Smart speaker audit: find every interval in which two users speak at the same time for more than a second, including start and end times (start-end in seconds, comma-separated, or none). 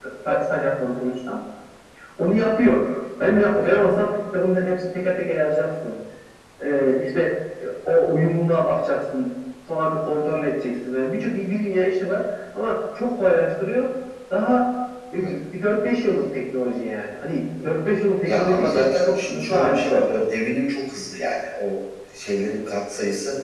18.2-20.2